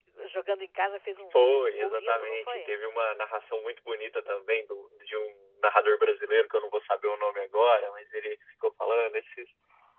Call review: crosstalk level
present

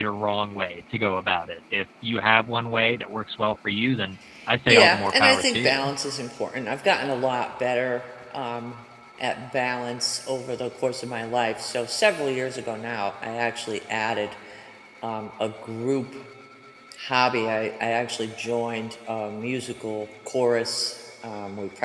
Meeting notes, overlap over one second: present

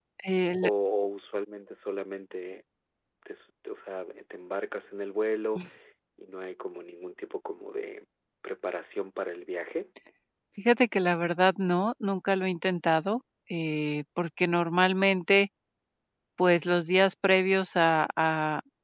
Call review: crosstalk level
none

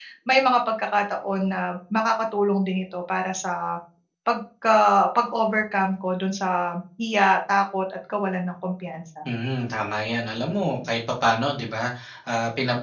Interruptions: none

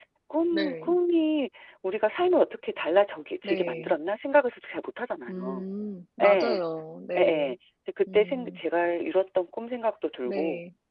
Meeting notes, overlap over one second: none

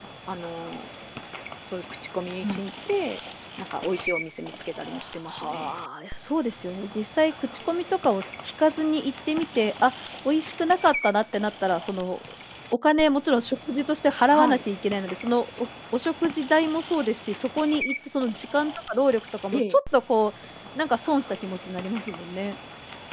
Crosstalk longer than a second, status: none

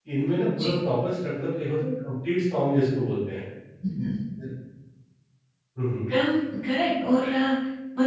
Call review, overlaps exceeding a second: none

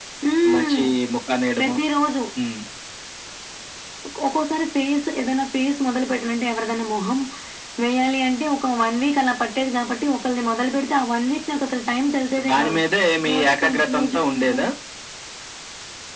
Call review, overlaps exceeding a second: present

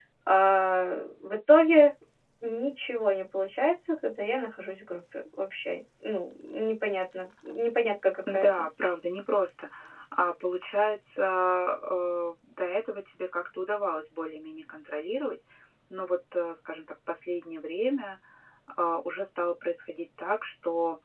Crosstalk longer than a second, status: none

